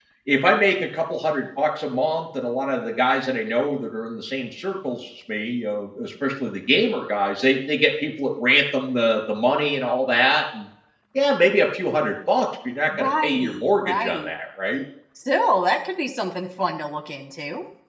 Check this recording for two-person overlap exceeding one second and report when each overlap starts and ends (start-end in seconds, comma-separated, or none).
12.9-14.3